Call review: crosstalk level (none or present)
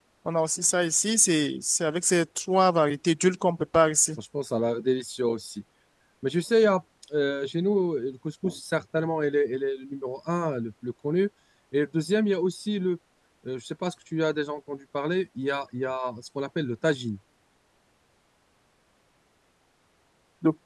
none